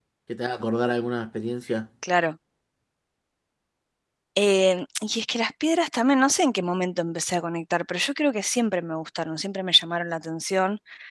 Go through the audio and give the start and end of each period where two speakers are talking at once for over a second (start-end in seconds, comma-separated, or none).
none